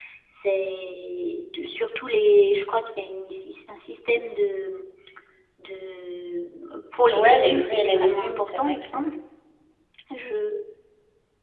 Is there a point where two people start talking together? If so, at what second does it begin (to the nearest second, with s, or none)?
7 s